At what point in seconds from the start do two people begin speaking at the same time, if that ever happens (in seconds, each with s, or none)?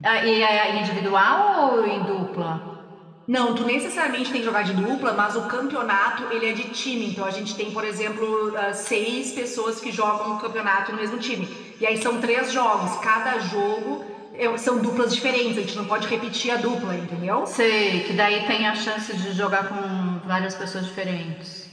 none